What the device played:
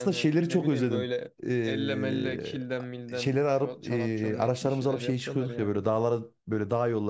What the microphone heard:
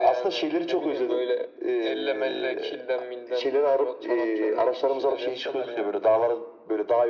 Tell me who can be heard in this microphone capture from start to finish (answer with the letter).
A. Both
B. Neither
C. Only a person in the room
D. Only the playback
D